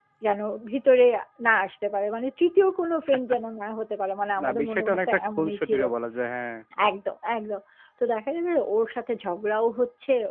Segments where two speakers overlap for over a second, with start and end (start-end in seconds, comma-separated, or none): 4.4-5.8